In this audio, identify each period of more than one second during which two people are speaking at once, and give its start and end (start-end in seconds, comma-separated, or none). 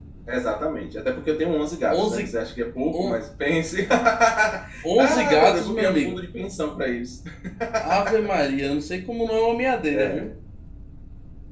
5.0-6.2